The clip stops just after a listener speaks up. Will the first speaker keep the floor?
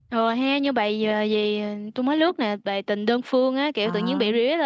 Yes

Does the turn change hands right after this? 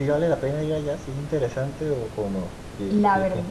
Yes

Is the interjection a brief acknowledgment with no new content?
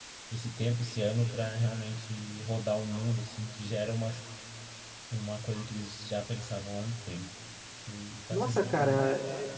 No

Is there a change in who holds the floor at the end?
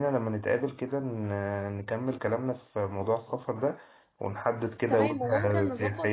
Yes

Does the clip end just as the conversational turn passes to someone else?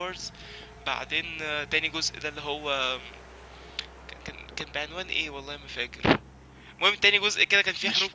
No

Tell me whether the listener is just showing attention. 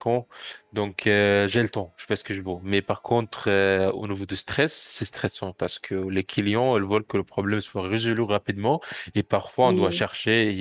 Yes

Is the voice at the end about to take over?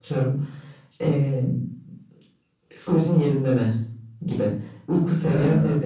Yes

